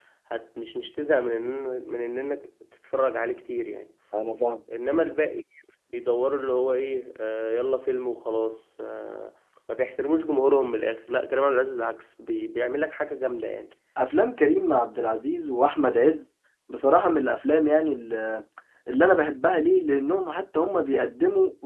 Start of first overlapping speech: none

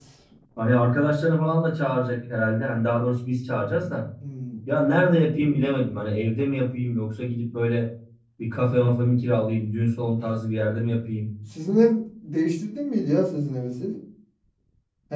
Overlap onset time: none

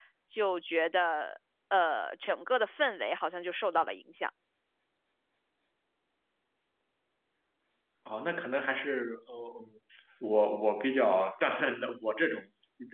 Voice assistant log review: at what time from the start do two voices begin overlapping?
none

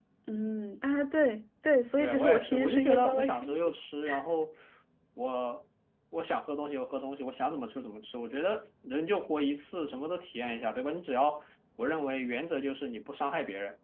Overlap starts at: 2 s

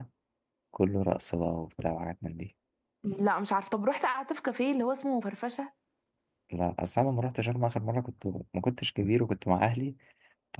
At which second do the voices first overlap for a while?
none

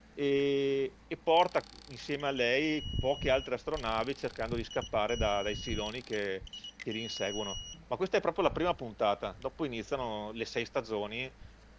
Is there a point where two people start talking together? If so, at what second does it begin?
none

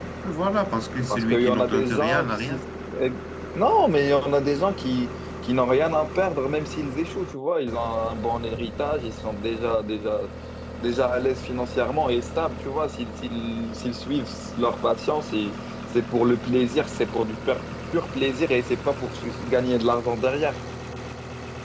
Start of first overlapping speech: 1 s

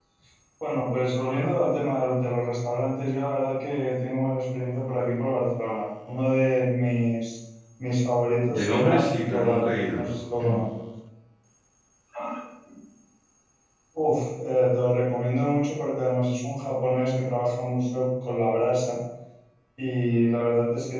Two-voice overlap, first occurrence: 8 s

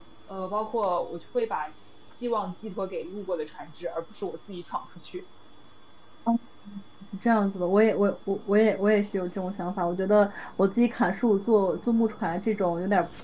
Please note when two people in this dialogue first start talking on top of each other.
none

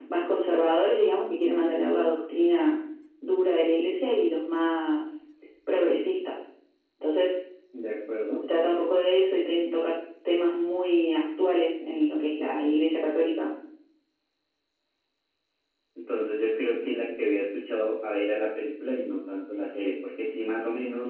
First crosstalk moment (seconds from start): none

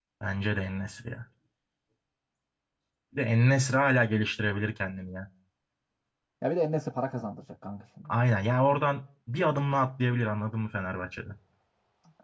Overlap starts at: none

